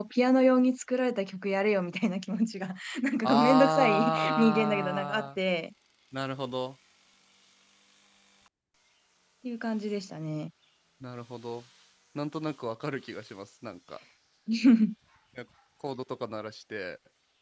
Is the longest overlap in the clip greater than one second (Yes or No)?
Yes